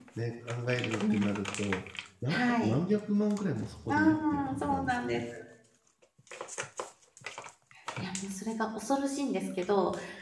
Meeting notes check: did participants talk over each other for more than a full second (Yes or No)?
Yes